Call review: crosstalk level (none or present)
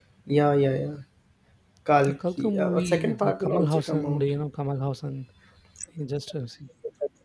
present